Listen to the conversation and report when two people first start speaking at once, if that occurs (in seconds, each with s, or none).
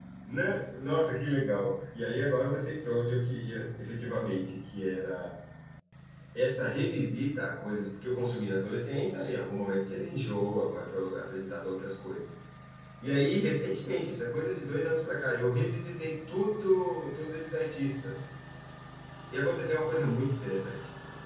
none